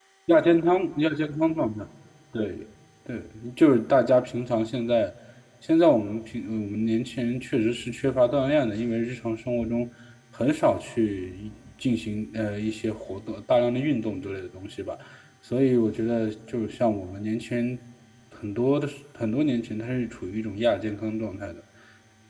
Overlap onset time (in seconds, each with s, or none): none